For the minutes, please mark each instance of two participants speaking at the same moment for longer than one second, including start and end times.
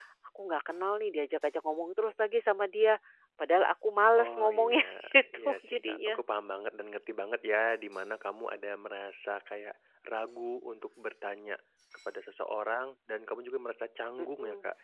4.2-6.2

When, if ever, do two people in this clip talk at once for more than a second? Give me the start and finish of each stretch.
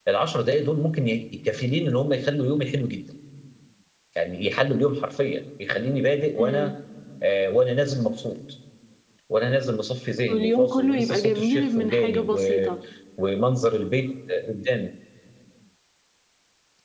10.3-12.7

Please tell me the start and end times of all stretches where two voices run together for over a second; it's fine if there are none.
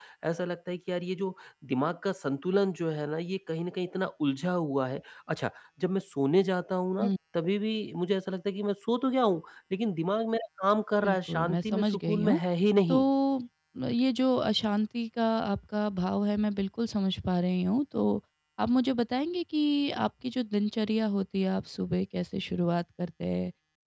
11.0-12.4

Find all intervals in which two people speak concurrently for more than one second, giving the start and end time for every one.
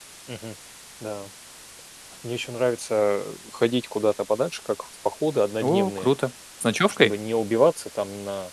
none

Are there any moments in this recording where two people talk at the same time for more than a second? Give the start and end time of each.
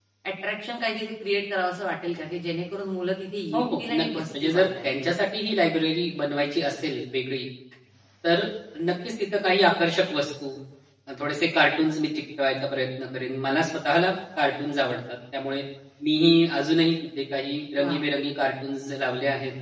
3.5-4.9

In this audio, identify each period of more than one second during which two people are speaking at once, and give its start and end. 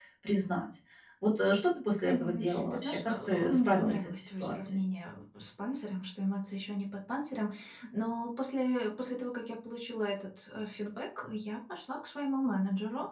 2.1-4.8

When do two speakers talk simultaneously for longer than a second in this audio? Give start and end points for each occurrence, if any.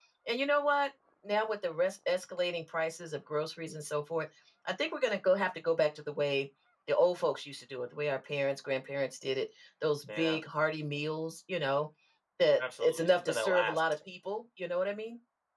12.6-13.8

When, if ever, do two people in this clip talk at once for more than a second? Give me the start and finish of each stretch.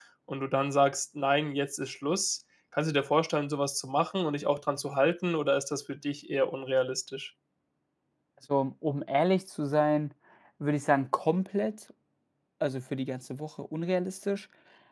none

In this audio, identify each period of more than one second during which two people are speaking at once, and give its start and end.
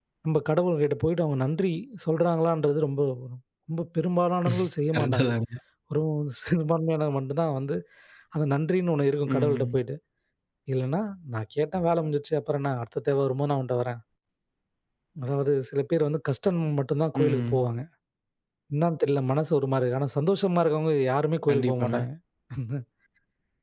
none

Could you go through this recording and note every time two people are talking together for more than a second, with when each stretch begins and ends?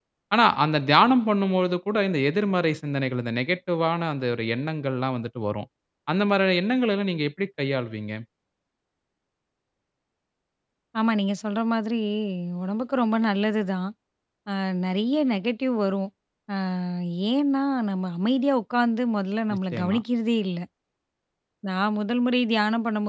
none

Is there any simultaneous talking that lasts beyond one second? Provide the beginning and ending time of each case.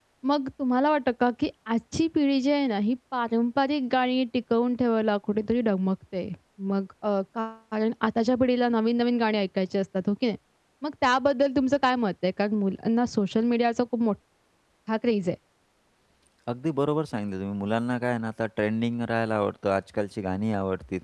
none

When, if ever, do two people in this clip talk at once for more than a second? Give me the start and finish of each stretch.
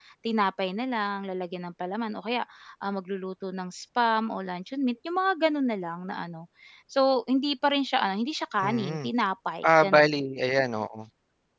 none

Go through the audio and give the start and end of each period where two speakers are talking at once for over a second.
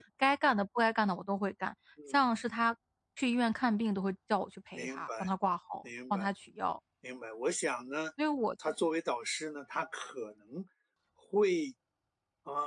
none

